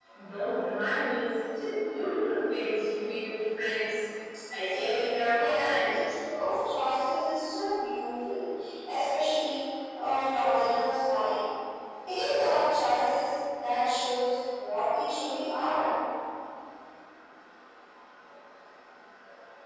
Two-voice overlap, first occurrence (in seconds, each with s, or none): 4.7 s